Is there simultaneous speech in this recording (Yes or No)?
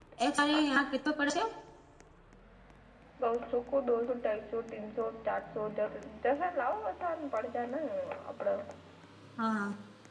No